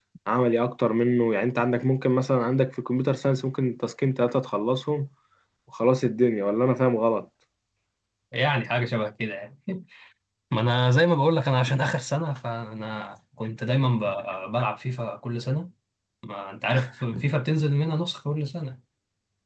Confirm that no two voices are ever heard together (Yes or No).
Yes